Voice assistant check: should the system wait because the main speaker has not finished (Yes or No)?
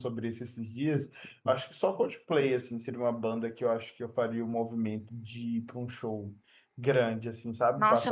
No